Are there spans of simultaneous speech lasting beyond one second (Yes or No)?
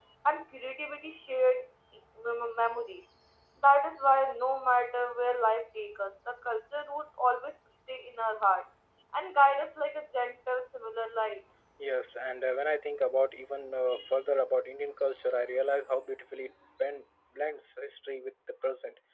No